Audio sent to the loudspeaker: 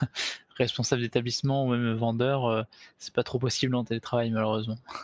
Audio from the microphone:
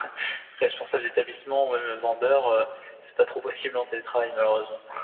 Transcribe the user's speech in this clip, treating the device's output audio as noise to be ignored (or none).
none